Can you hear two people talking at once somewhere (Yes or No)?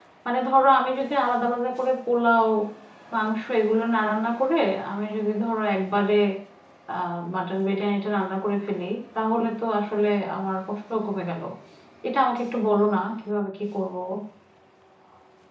No